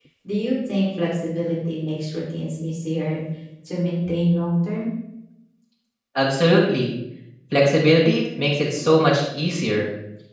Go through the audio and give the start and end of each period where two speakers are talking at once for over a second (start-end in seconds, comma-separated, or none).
none